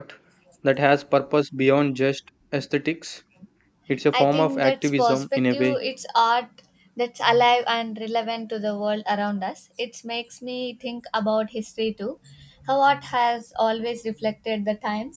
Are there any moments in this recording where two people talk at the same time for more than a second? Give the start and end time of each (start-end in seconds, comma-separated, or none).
4.1-5.8